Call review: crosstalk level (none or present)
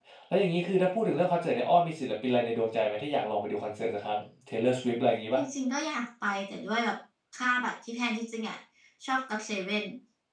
none